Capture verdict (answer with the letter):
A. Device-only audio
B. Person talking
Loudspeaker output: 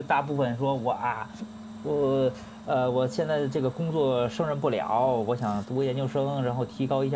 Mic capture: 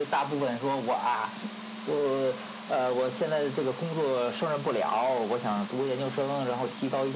A